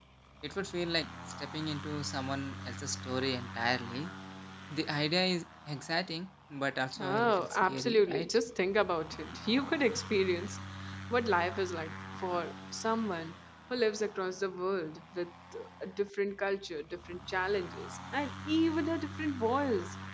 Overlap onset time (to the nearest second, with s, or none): 7 s